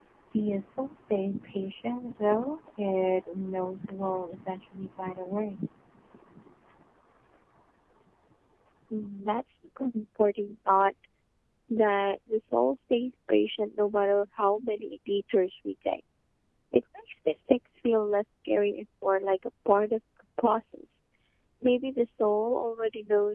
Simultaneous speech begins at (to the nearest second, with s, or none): none